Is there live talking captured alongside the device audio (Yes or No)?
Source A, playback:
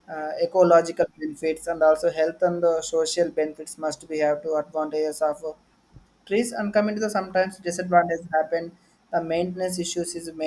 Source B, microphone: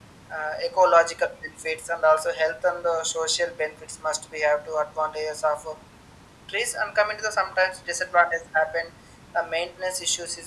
No